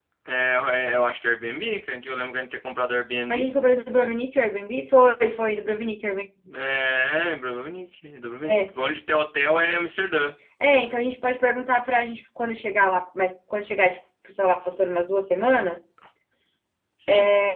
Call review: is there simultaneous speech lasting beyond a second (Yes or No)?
No